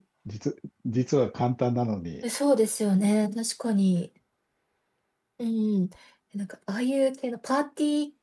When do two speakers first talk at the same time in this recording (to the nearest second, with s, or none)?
none